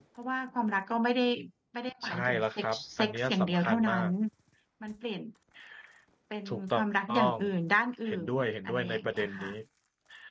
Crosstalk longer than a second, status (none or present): present